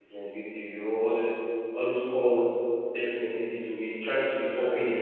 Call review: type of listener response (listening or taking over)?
listening